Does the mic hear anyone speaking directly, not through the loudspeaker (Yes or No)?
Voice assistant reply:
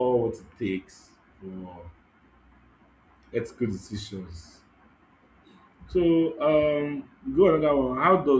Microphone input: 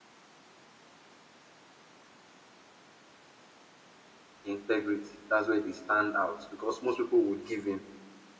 Yes